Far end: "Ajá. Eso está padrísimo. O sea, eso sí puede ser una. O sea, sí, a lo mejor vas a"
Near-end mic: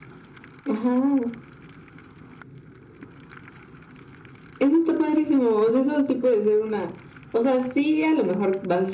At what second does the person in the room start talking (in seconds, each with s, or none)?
none